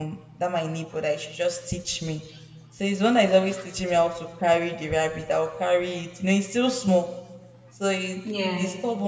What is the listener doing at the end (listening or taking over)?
listening